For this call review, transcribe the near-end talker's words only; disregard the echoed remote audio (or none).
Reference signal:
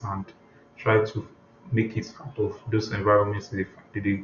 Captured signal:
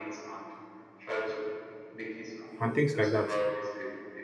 and things like that.